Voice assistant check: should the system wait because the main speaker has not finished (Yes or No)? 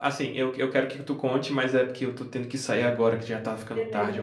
No